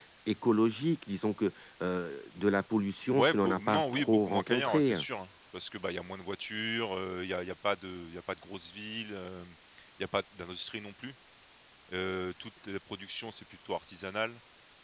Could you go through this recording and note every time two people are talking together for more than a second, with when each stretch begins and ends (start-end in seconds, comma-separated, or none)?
3.2-5.0